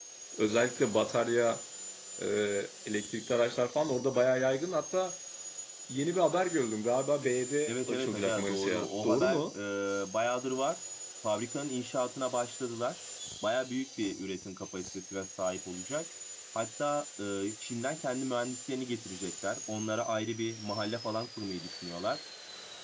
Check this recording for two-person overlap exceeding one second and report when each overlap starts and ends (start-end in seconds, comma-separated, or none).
7.7-9.4